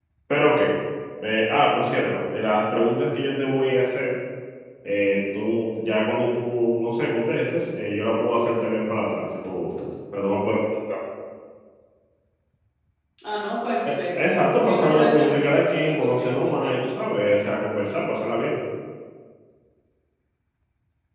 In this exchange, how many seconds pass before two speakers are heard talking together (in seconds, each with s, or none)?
13.8 s